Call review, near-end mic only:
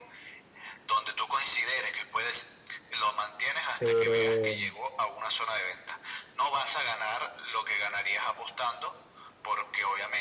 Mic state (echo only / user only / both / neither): both